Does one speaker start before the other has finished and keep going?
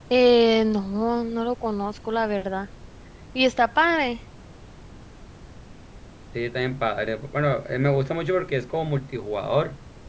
No

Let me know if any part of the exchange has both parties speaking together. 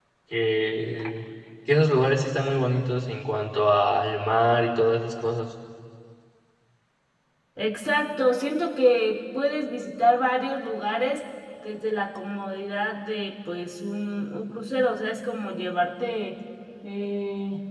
No

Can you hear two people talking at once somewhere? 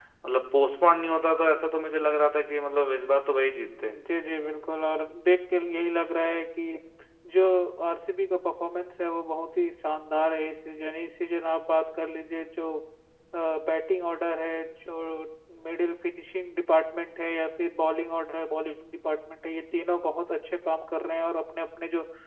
No

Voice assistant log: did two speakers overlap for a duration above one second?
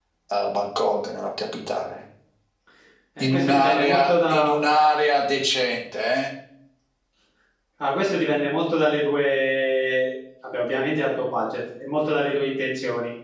Yes, from 3.2 s

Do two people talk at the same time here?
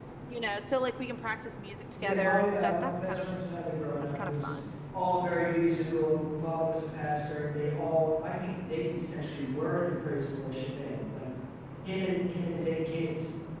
Yes, from 2.0 s

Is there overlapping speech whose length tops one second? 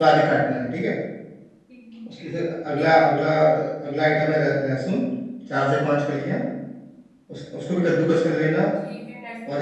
No

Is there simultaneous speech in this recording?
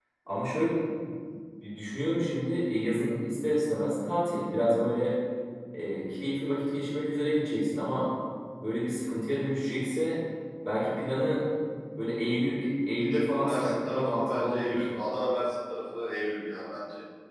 Yes, from 12.9 s

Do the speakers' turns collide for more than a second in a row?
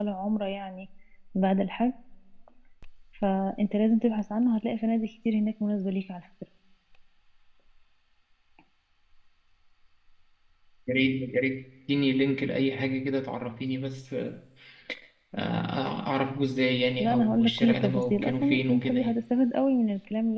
Yes, from 17.0 s

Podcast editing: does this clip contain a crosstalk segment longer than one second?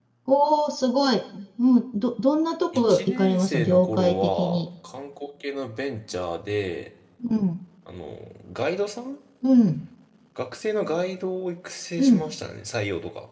Yes, from 2.7 s

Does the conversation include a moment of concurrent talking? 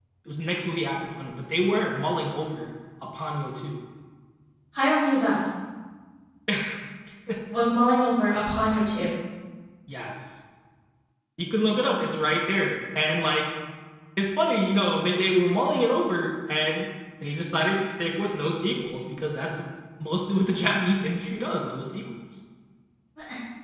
No

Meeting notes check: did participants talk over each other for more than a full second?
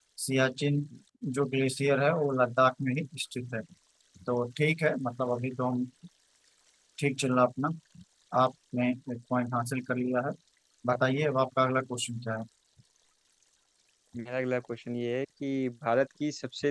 No

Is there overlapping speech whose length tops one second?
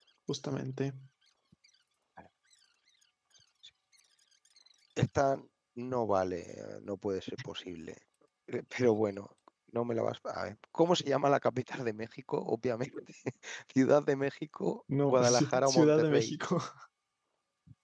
Yes, from 14.9 s

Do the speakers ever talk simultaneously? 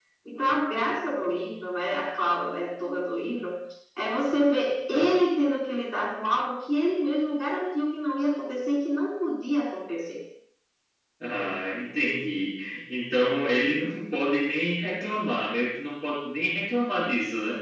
No

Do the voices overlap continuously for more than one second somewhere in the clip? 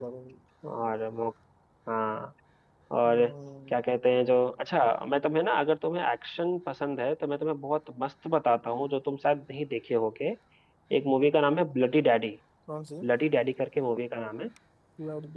No

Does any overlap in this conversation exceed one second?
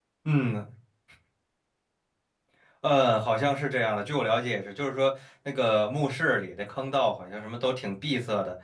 No

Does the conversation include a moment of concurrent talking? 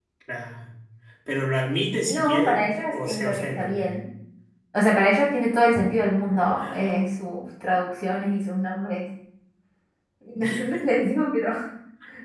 Yes, from 2.1 s

